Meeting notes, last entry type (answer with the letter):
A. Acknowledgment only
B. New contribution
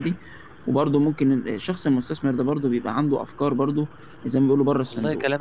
B